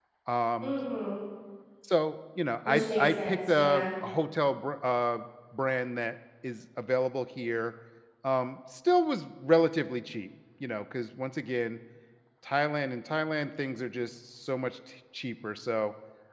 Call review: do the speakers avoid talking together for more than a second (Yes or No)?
No